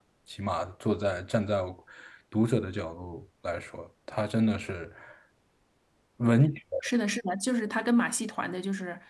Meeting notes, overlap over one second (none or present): none